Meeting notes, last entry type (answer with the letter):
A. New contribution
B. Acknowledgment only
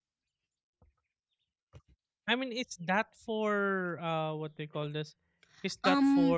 A